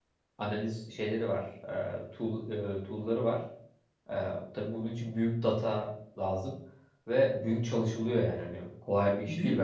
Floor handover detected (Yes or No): Yes